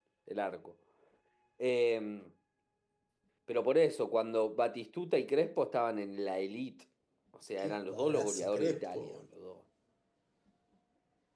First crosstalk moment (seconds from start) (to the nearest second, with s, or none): 8 s